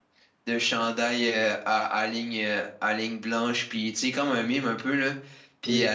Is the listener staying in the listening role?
Yes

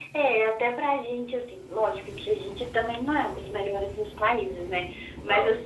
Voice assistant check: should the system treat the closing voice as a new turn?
No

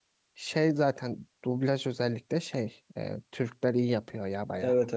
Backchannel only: No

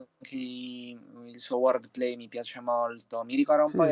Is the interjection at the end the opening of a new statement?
No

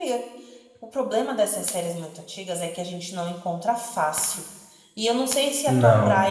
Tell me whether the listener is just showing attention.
Yes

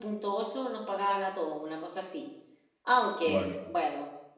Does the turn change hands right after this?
No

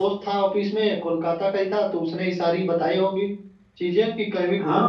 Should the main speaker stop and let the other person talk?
Yes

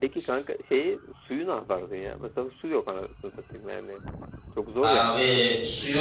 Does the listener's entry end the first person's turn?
Yes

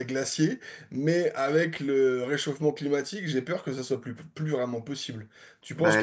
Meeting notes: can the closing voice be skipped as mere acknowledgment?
No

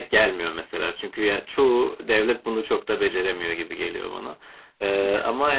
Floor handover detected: No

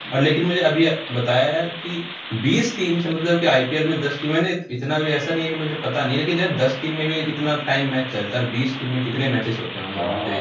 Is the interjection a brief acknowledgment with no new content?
No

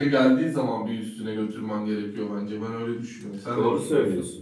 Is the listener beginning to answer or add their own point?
Yes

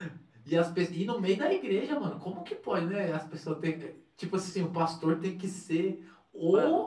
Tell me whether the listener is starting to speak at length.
No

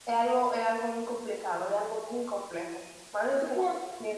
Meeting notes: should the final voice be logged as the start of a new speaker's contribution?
Yes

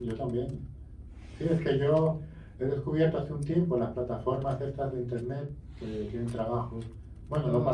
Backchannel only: Yes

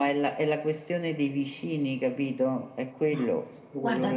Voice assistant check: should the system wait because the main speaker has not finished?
No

